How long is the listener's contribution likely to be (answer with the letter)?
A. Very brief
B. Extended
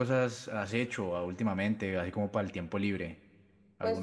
B